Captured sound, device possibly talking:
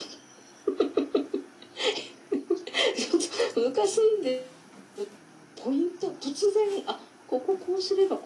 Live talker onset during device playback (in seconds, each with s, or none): none